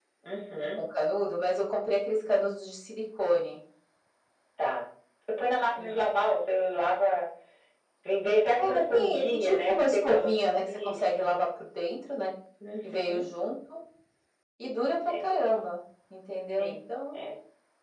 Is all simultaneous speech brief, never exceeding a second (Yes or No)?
No